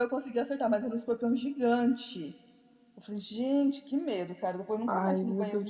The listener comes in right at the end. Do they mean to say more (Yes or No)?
Yes